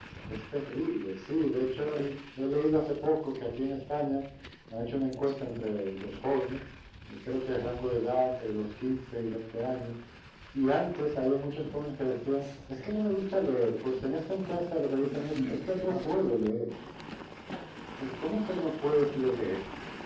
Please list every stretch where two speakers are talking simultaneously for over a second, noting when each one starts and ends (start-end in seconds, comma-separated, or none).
15.0-16.3